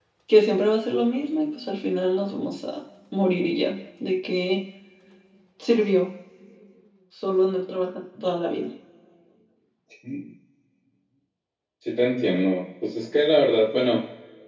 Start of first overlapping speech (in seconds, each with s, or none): none